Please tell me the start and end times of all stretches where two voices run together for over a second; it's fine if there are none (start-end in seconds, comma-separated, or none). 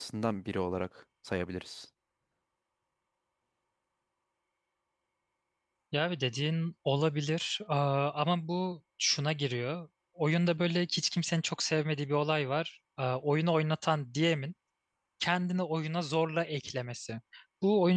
none